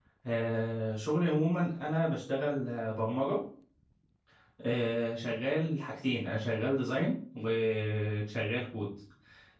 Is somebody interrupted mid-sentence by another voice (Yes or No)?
No